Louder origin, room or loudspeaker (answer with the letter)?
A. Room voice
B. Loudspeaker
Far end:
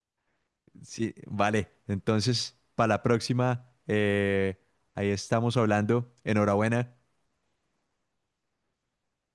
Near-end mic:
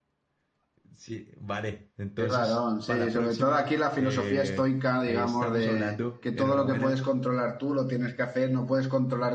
A